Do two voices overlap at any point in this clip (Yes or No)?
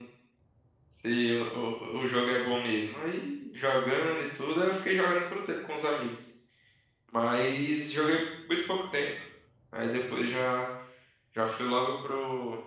No